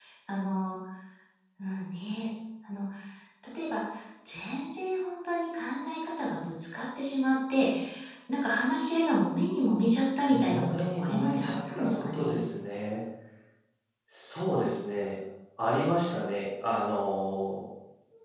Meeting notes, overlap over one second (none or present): present